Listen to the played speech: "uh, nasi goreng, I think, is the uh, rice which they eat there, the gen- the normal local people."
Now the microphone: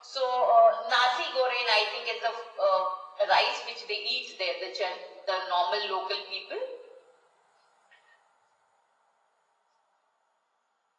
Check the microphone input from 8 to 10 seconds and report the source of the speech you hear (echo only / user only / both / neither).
neither